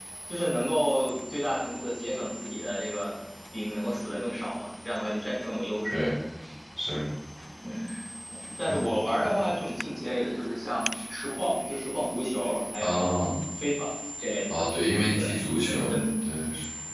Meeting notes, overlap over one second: present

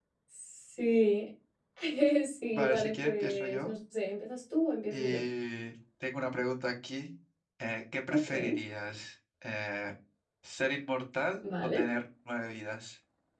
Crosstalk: present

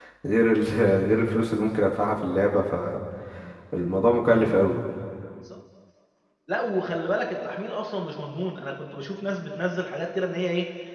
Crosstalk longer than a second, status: none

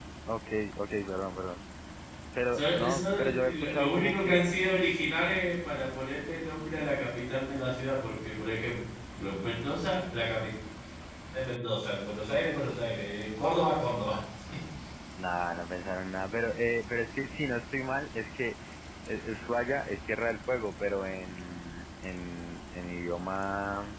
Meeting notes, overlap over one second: present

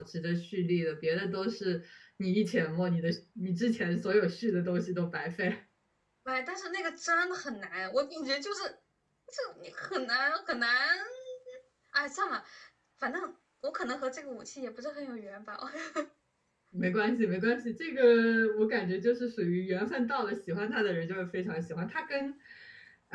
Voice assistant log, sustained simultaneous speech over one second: none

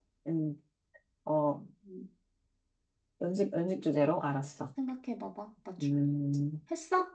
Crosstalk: none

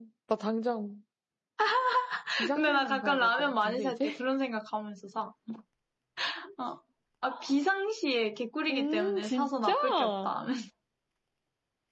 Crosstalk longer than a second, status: present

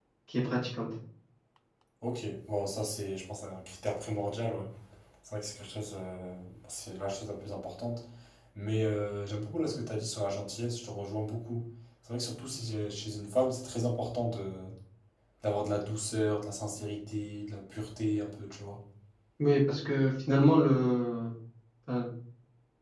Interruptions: none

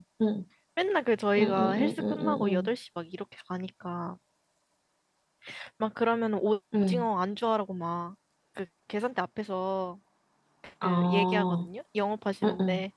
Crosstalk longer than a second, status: present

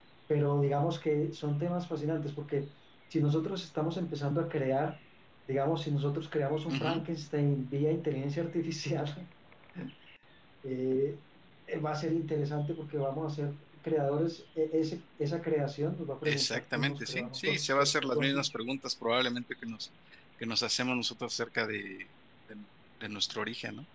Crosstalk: present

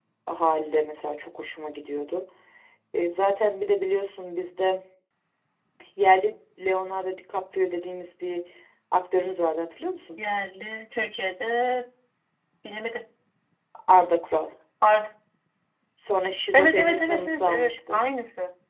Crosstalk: present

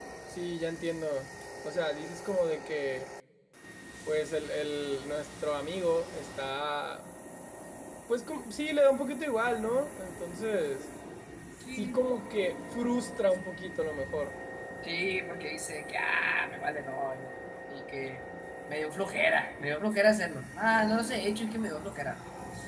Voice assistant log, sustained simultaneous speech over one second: none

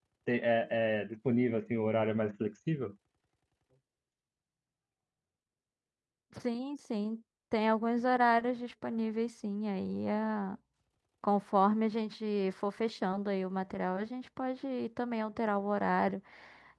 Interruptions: none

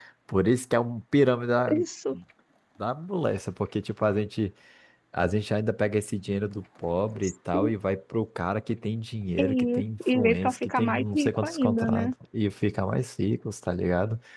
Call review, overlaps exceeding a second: present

